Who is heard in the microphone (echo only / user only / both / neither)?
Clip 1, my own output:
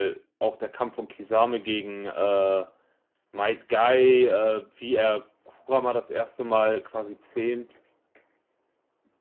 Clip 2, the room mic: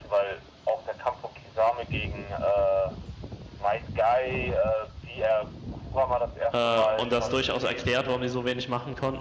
both